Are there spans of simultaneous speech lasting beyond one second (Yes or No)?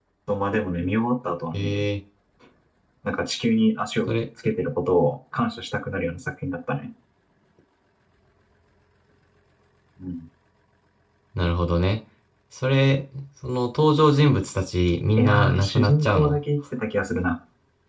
Yes